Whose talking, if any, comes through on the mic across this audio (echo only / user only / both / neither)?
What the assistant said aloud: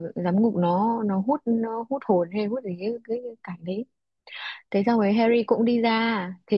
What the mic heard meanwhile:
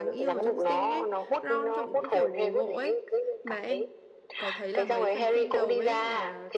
both